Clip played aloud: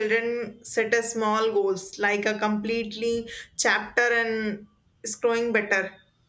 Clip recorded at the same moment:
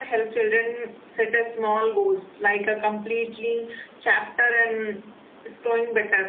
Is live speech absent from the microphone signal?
Yes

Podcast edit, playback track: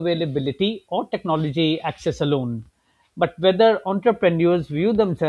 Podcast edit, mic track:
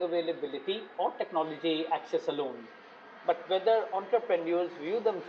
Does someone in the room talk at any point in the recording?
No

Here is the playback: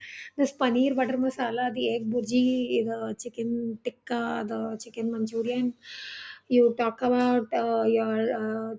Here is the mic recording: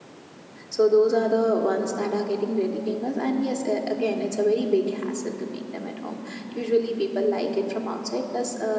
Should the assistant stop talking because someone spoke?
Yes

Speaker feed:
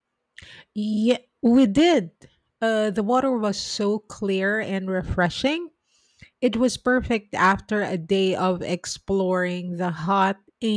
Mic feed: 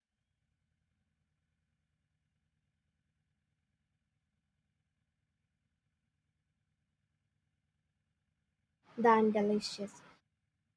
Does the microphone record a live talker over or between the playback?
Yes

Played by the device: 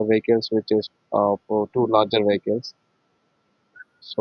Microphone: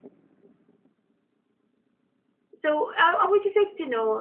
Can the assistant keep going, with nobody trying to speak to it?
No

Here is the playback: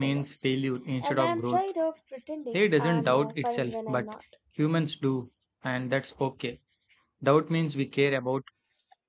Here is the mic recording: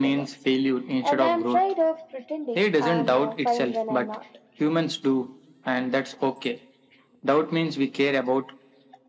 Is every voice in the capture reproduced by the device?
Yes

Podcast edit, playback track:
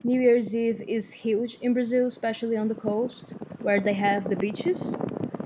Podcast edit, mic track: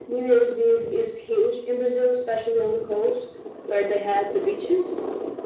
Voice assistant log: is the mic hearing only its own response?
Yes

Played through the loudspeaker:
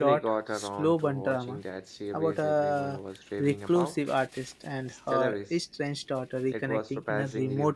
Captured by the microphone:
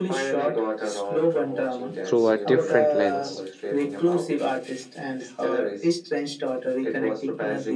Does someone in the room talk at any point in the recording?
Yes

